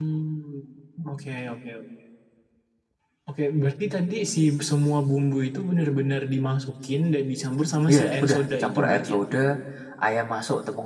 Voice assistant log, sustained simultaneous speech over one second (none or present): present